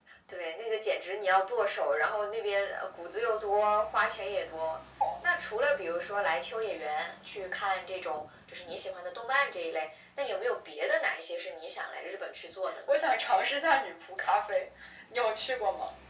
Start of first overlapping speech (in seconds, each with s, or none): none